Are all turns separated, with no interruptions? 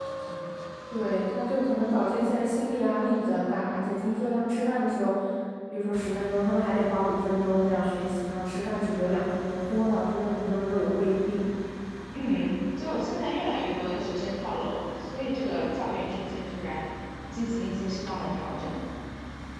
Yes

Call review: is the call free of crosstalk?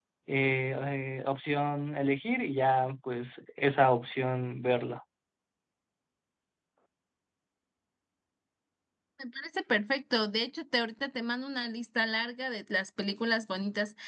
Yes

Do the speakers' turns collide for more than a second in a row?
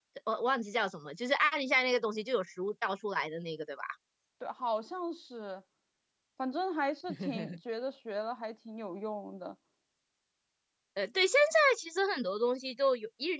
No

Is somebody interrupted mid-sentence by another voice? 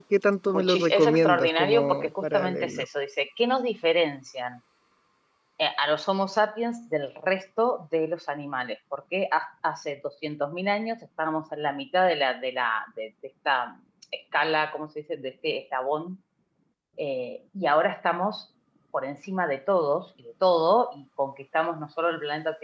Yes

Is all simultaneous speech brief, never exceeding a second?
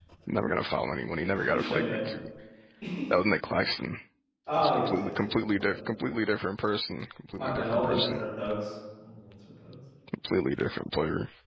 No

